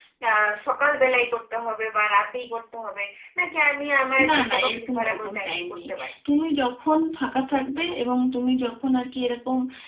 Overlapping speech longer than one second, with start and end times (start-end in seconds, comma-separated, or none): 4.3-5.9